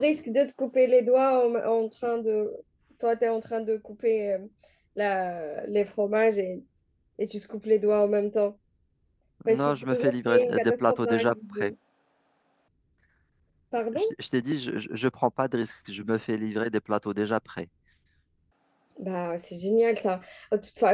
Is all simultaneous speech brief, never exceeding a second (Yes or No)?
No